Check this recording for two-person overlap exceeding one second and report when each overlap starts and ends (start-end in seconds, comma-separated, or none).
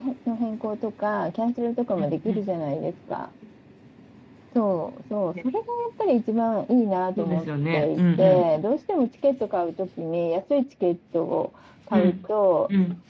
7.2-8.6